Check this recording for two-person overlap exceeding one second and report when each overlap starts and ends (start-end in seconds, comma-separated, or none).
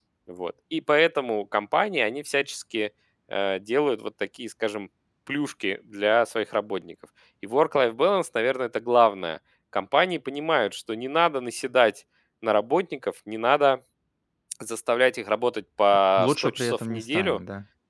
16.2-17.4